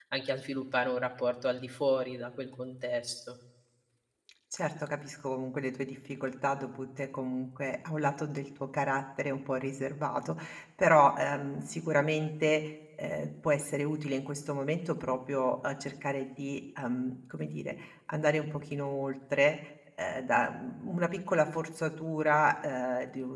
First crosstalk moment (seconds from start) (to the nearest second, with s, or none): none